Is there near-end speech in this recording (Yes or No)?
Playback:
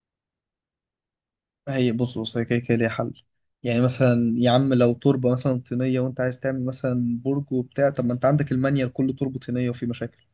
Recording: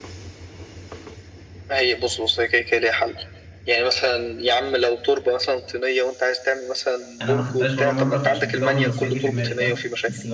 Yes